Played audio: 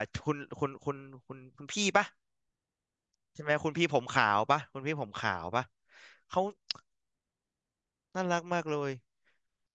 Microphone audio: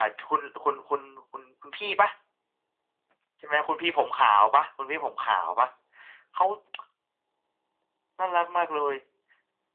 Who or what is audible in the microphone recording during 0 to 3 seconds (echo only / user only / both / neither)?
echo only